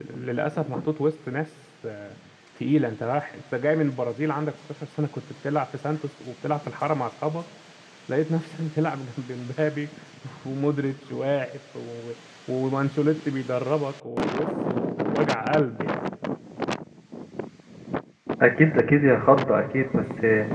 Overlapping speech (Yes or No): No